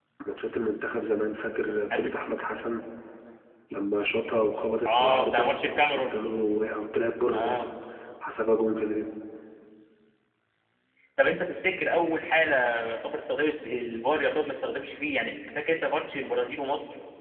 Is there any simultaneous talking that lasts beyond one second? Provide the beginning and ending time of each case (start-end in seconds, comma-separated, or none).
4.8-6.2